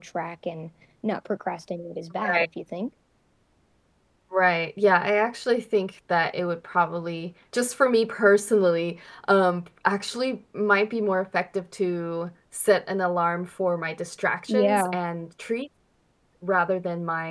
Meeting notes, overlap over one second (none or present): none